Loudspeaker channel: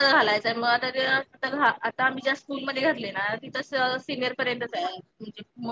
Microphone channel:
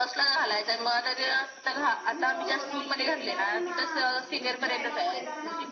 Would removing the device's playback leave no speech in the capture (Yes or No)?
No